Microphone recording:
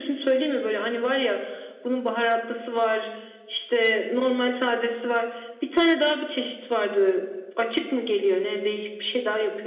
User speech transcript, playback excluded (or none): none